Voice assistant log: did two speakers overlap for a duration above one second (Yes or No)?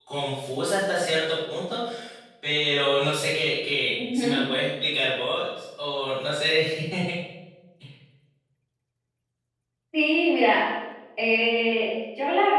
No